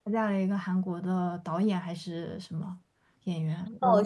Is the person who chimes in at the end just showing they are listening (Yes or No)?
No